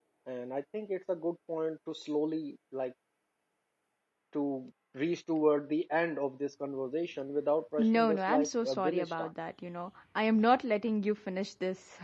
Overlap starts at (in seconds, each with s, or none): 7.8 s